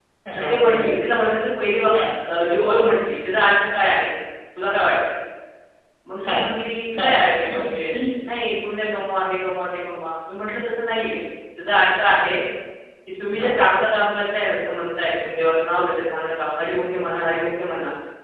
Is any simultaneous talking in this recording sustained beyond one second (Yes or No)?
No